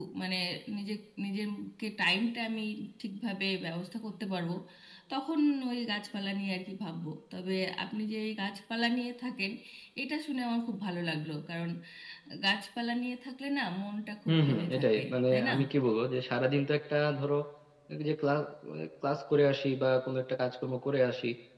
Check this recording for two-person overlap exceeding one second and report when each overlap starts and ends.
14.3-15.5

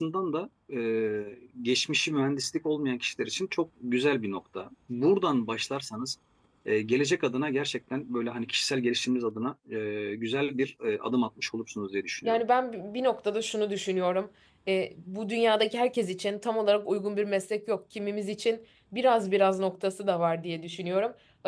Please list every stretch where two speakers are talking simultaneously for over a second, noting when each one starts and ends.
none

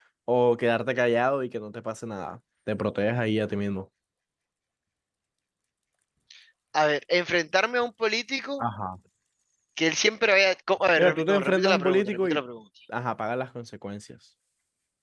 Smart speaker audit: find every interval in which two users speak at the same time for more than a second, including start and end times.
11.0-12.4

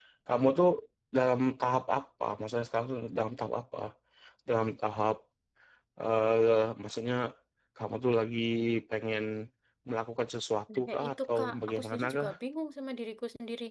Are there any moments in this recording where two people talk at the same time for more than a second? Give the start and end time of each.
10.7-12.3

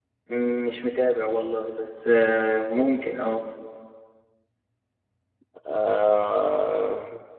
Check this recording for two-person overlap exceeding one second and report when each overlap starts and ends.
none

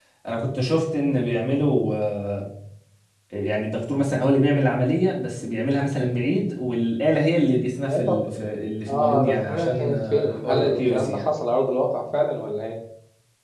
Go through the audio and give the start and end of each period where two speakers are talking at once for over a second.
8.9-11.3

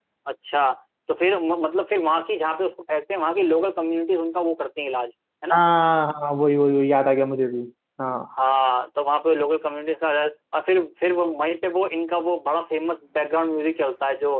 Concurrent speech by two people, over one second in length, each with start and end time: none

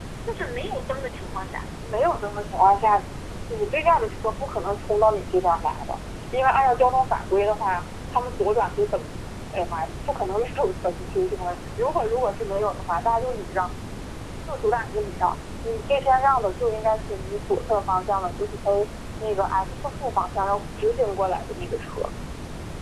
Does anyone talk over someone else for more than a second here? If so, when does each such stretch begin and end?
none

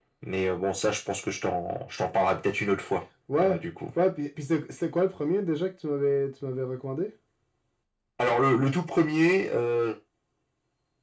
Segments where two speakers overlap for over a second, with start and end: none

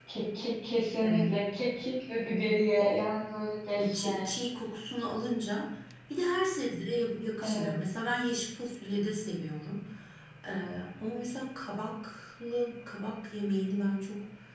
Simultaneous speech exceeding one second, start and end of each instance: none

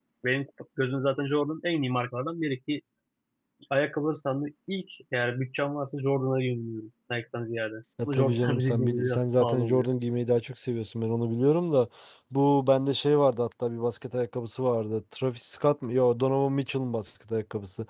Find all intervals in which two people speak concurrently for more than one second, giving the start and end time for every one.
8.0-9.9

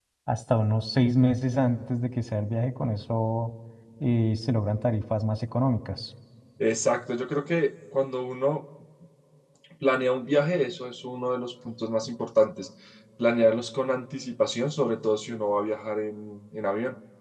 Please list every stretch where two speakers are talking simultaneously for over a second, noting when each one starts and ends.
none

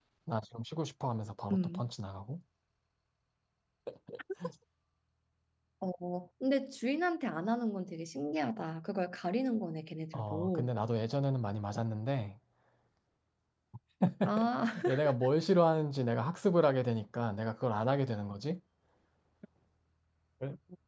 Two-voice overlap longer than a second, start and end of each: none

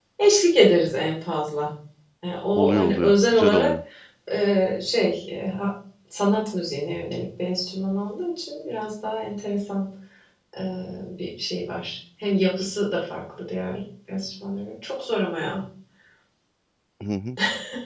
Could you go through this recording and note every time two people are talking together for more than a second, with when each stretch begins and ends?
2.5-3.8

